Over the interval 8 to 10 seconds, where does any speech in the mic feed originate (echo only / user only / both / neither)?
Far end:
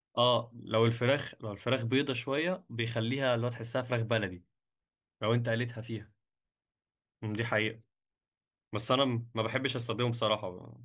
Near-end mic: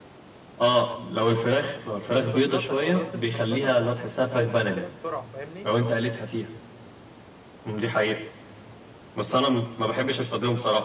echo only